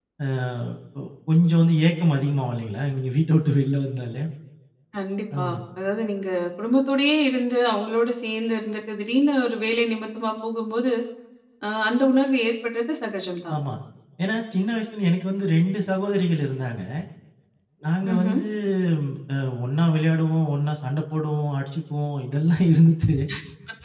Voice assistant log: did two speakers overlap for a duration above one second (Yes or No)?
No